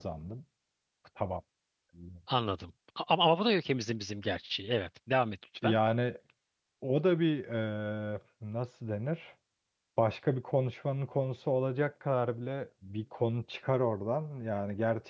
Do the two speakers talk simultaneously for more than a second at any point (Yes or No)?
No